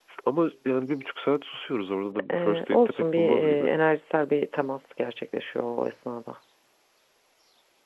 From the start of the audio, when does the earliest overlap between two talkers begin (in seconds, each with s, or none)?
2.3 s